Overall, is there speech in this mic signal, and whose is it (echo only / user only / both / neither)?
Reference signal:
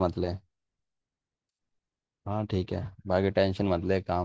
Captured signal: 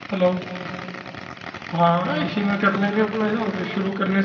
user only